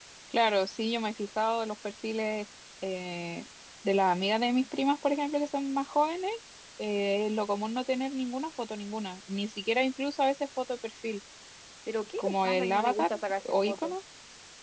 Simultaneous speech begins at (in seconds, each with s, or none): 12.2 s